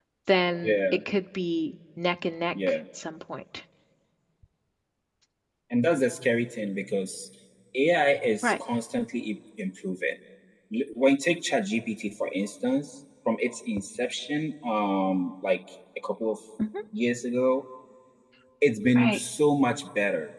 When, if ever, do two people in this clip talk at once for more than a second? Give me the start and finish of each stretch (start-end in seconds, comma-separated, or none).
none